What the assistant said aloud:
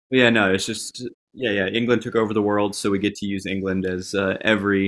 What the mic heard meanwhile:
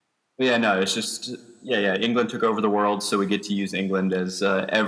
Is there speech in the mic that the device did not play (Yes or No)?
No